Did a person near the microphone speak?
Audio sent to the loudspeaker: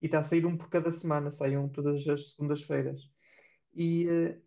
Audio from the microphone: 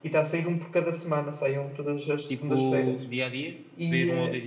Yes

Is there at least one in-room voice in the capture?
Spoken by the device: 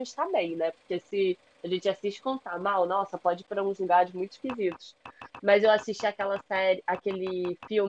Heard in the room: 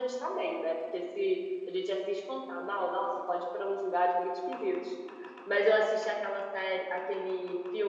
No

